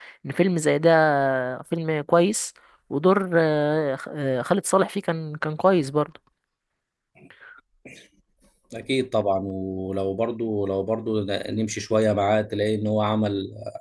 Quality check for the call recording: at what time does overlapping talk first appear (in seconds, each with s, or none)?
none